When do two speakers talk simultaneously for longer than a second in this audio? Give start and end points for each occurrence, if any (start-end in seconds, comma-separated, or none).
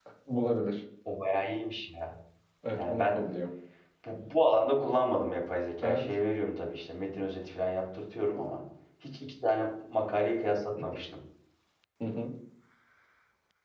none